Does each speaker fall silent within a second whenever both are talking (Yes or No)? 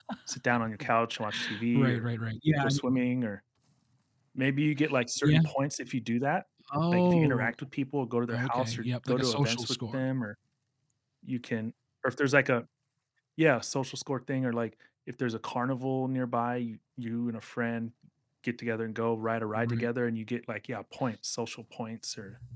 No